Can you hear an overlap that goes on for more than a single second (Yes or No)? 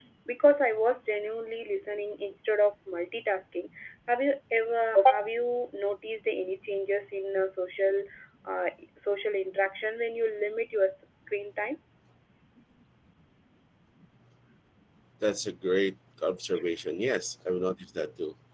No